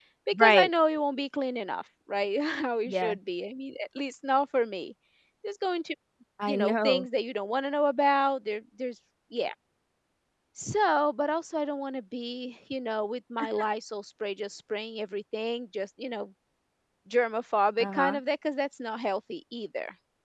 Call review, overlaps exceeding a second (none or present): none